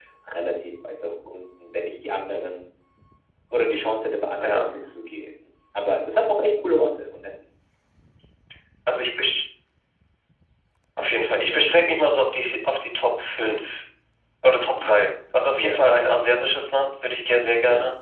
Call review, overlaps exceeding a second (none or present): none